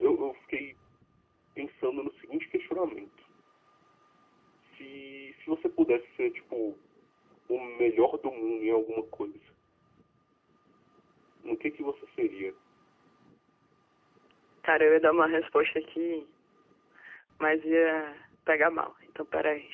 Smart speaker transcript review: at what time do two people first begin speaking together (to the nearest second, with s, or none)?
none